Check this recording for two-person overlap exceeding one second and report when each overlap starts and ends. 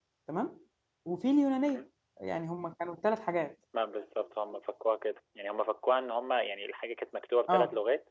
none

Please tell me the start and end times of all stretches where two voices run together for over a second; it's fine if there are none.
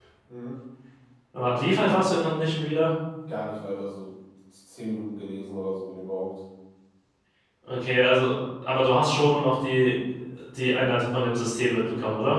none

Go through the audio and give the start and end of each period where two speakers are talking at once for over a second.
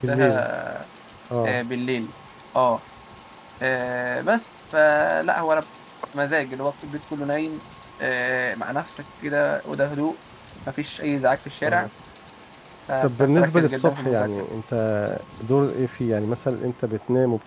13.0-14.4

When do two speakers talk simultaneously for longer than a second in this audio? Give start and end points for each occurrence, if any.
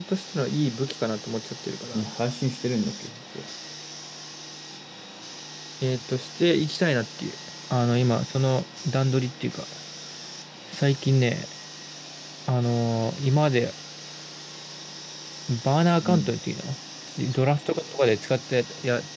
none

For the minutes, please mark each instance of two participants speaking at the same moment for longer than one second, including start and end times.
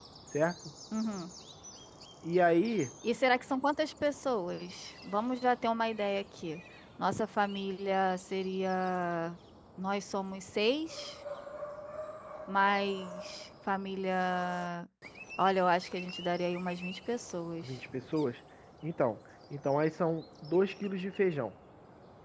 none

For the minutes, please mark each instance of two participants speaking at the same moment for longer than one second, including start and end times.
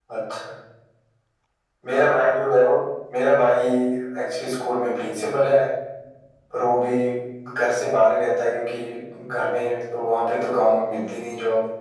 none

